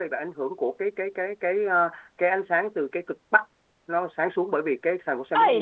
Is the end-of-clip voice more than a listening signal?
Yes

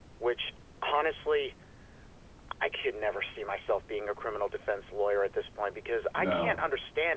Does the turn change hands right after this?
No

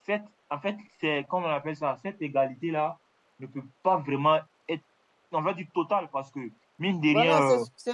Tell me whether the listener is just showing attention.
No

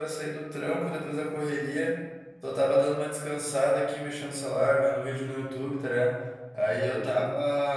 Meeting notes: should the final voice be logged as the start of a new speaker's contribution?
No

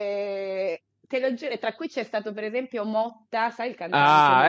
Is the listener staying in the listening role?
No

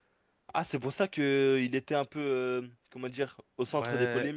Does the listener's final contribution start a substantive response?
Yes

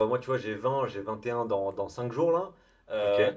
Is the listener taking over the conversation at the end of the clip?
No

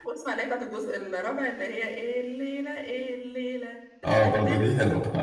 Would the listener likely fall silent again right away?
No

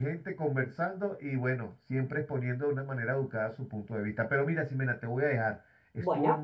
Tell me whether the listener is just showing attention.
Yes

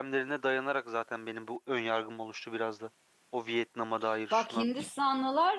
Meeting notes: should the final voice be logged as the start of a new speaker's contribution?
Yes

